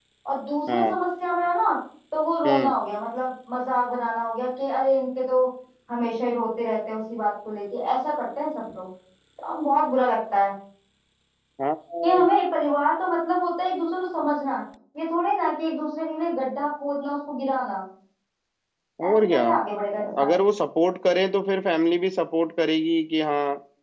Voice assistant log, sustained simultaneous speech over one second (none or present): none